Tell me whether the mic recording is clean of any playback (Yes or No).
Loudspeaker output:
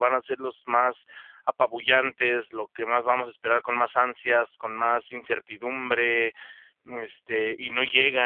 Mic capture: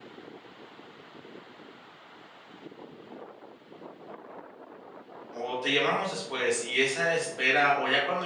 Yes